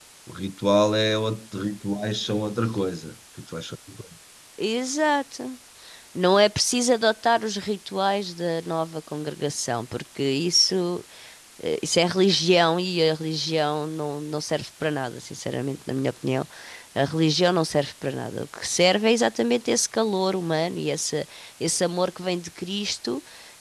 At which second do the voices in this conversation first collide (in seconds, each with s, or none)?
none